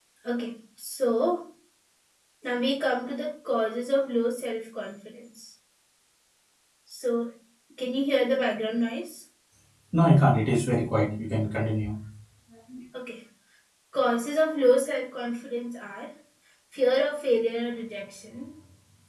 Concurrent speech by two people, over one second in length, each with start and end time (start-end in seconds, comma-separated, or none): none